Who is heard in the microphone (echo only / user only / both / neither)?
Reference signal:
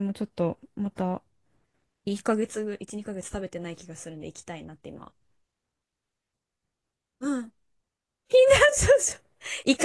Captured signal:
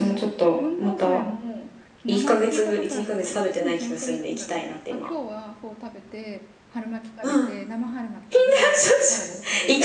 both